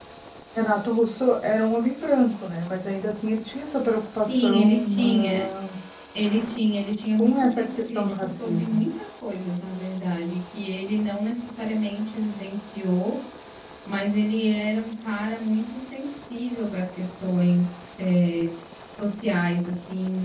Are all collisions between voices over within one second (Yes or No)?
No